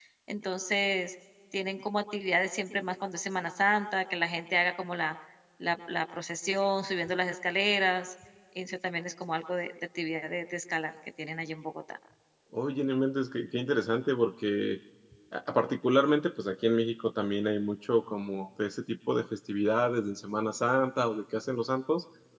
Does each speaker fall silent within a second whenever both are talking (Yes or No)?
Yes